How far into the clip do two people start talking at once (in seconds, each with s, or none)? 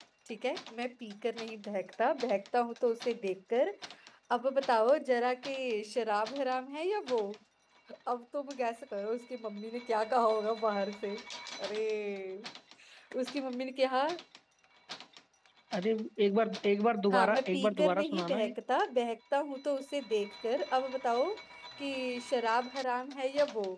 17.1 s